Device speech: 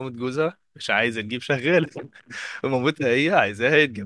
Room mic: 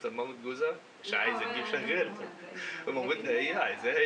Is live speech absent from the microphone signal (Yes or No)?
No